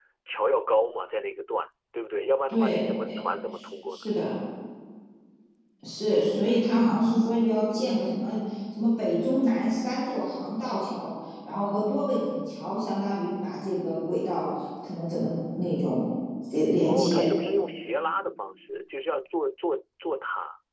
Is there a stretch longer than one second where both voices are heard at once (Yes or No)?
No